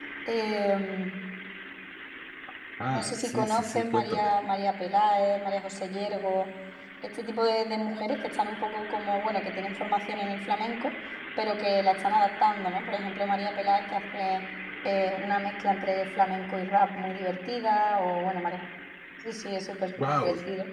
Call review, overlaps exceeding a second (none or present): present